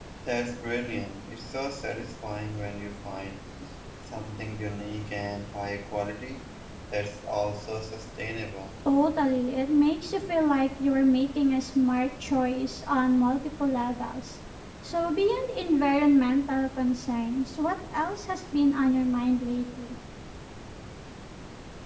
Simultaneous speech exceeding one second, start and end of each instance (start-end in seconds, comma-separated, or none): none